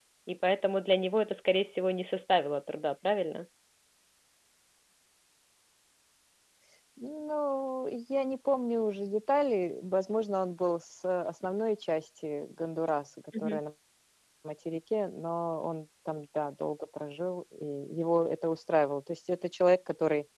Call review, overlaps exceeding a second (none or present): none